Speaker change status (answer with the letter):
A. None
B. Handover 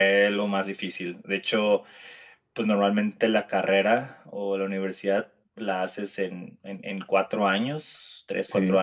A